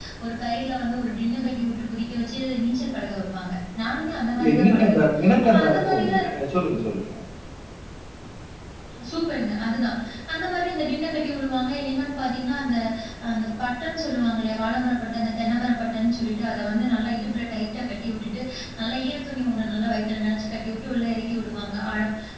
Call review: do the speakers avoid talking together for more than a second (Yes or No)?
No